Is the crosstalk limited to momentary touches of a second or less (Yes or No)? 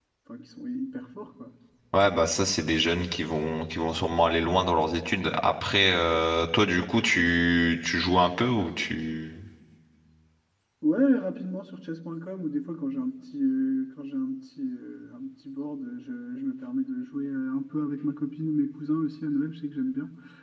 Yes